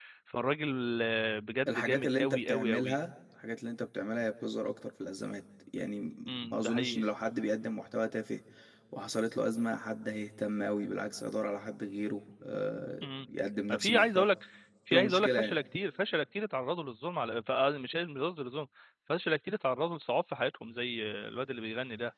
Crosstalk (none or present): present